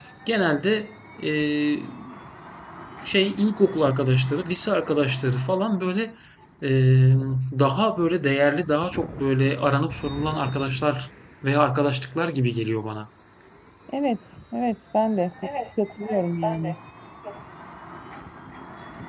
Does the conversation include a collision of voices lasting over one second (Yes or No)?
No